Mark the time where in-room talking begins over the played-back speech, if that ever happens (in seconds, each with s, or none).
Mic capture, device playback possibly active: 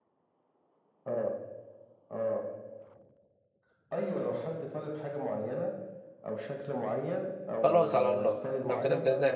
7.6 s